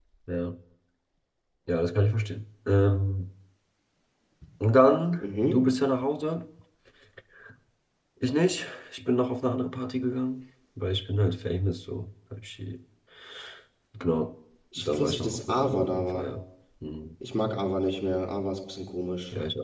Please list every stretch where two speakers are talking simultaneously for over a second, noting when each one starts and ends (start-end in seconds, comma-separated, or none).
14.8-16.3